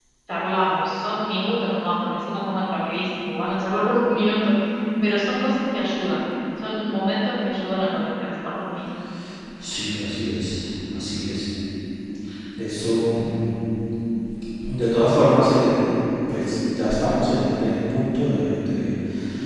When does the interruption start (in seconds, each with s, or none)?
none